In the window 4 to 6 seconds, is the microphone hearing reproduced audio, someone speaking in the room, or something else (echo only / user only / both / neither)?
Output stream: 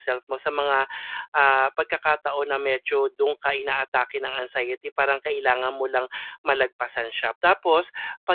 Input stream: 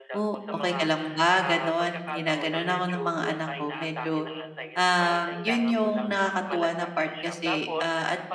both